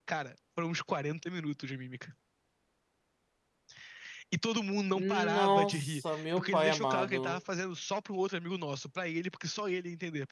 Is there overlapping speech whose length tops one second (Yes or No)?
Yes